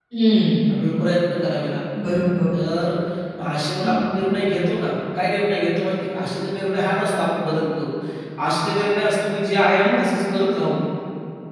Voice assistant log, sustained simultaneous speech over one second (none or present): none